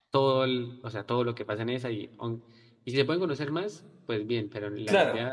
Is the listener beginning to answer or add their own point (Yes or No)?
No